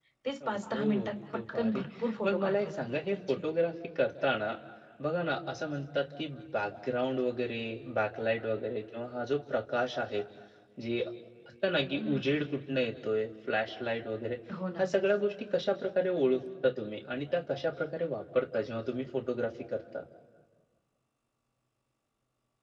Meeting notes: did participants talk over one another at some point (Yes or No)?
Yes